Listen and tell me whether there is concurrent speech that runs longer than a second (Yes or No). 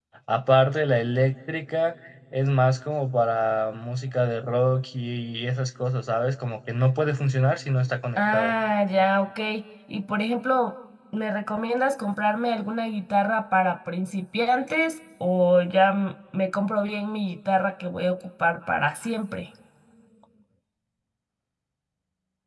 No